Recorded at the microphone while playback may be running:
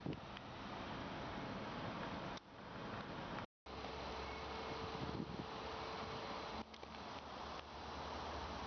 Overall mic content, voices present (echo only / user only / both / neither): neither